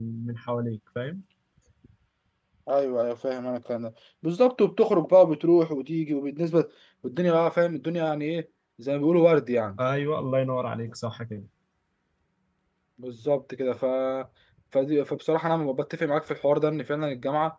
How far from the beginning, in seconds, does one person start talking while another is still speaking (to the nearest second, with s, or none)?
none